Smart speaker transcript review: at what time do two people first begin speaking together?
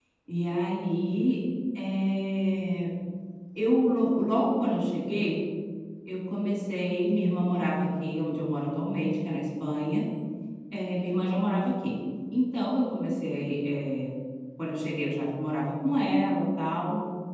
none

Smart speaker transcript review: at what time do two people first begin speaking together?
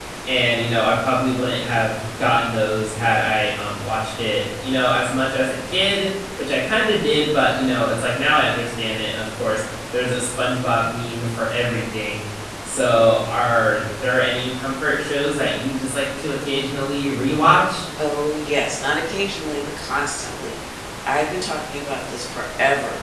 none

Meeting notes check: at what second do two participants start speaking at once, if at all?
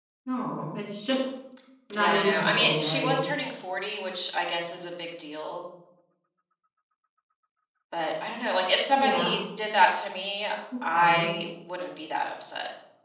1.9 s

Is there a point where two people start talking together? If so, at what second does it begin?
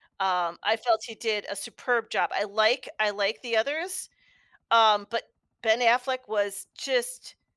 none

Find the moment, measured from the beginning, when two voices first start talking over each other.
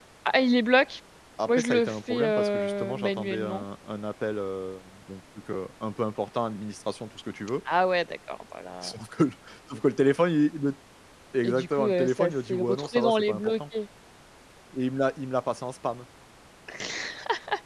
1.5 s

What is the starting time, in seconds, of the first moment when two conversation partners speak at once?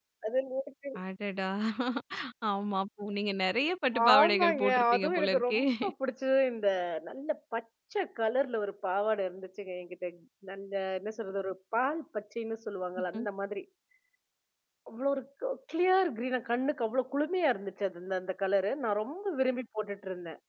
3.9 s

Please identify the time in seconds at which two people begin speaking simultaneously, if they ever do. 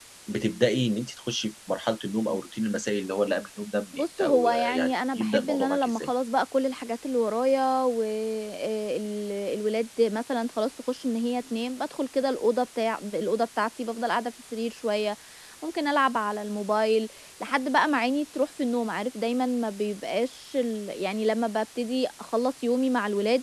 3.9 s

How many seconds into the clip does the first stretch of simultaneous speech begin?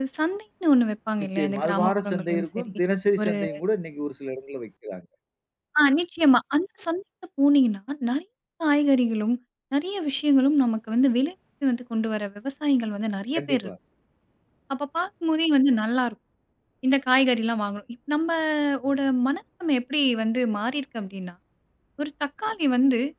1.2 s

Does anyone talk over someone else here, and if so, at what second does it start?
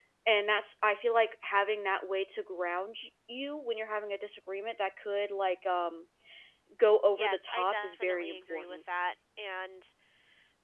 7.1 s

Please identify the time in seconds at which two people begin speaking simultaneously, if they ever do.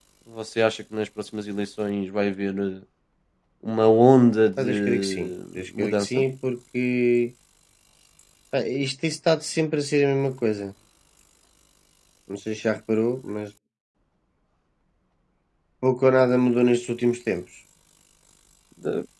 4.6 s

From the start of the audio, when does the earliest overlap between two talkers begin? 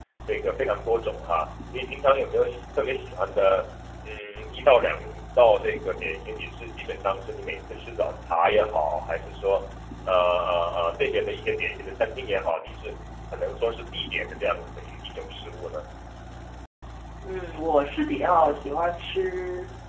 none

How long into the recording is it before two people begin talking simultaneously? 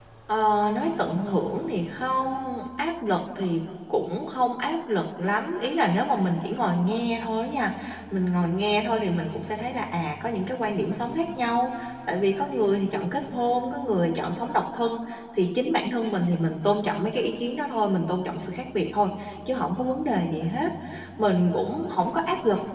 none

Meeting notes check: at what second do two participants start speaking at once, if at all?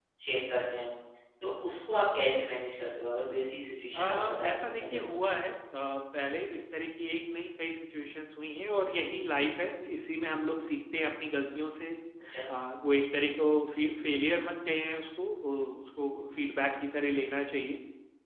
3.9 s

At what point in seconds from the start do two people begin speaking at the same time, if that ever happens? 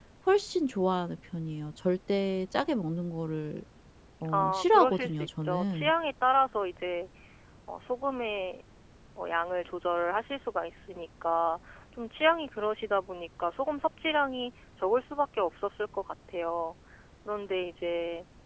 4.3 s

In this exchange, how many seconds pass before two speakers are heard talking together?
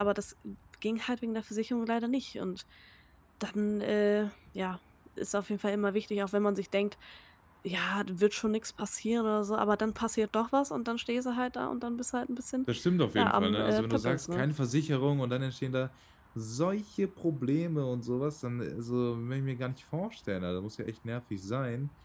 13.2 s

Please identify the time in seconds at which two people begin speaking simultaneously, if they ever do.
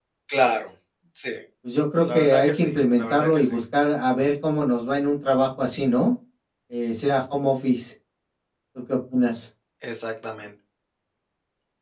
2.0 s

